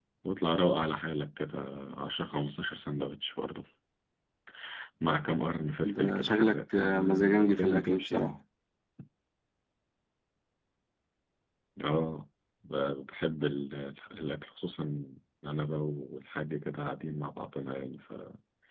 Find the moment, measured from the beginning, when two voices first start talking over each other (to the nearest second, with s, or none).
6 s